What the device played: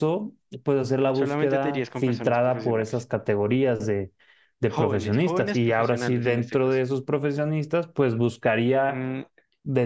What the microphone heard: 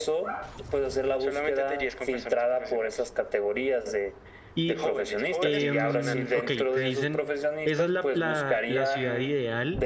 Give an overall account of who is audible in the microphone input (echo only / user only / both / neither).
both